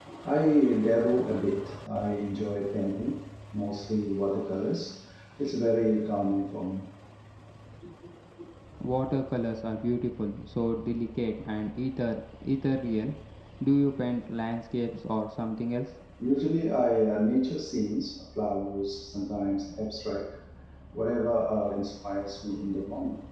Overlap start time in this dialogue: none

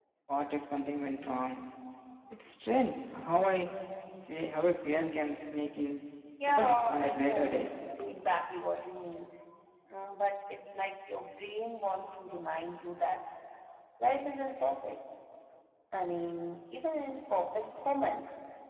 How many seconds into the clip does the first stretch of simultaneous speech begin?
6.4 s

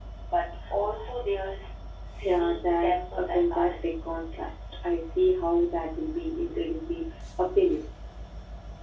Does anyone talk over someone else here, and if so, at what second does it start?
2.2 s

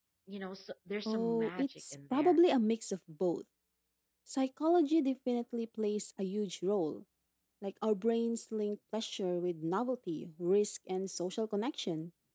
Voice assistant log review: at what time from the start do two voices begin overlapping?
1.1 s

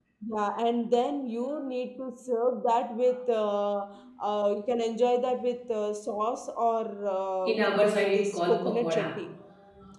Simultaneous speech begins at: 7.4 s

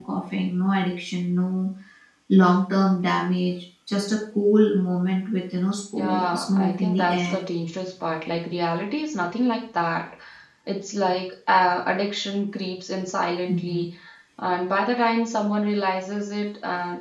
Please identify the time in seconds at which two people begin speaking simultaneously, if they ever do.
5.9 s

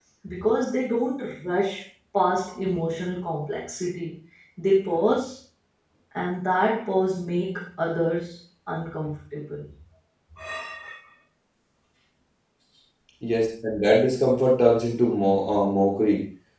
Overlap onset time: none

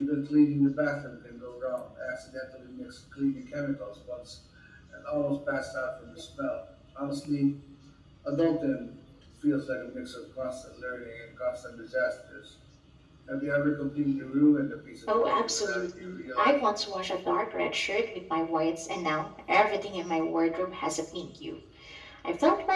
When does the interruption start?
15.1 s

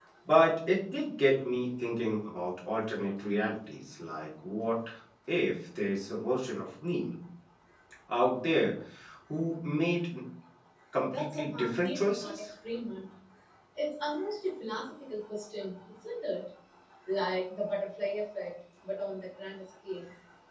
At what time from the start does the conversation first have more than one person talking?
11.0 s

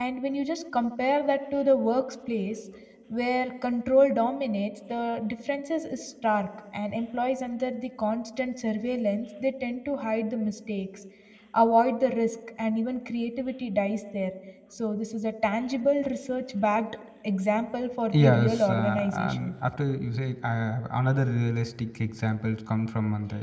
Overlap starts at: 18.1 s

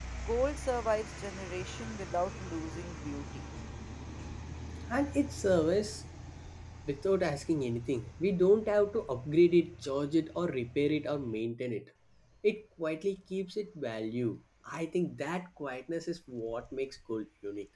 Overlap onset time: none

